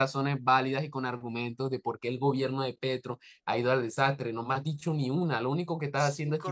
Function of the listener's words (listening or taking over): taking over